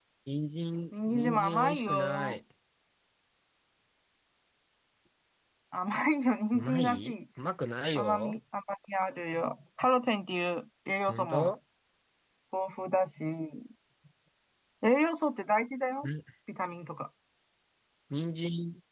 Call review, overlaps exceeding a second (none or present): present